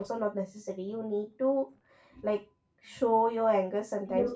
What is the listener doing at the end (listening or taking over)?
taking over